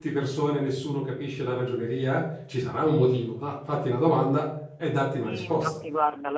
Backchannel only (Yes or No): No